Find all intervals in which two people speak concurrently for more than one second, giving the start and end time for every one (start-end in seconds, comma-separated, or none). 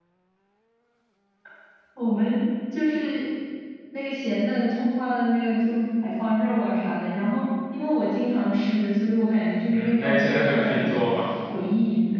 9.7-10.9